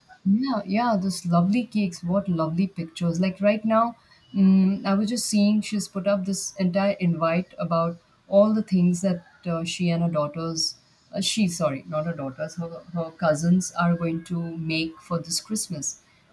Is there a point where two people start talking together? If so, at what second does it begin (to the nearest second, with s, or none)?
none